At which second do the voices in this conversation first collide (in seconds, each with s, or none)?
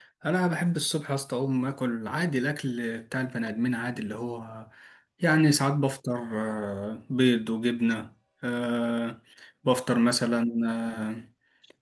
none